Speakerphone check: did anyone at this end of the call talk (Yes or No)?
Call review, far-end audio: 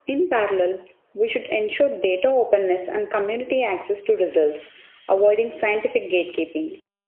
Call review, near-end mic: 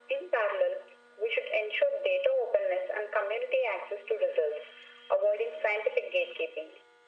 No